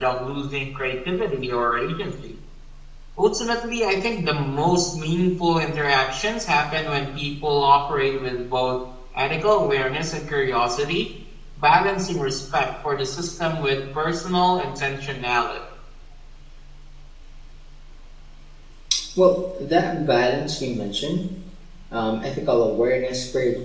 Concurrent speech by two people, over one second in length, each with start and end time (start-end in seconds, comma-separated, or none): none